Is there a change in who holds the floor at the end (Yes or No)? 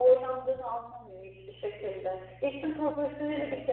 No